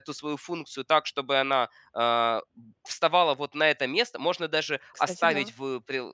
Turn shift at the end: No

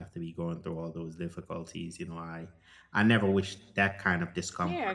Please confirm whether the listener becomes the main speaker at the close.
Yes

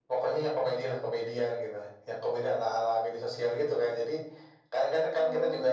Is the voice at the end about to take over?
No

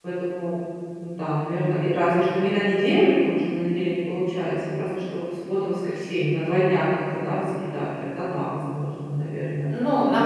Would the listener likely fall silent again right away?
No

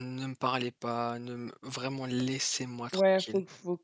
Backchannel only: No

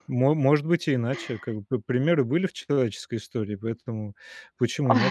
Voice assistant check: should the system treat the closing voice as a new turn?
No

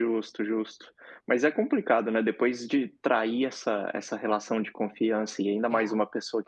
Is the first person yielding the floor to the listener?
No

